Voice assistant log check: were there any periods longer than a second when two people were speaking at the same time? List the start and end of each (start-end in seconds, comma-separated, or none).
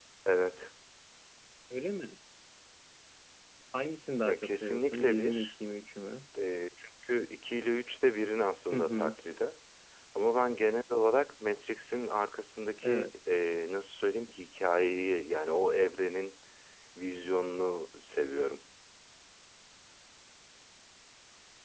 4.2-5.5